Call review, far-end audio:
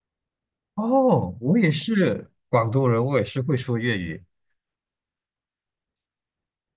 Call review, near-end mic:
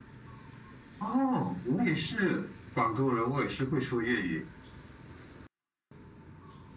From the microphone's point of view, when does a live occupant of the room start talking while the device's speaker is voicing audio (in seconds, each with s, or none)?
none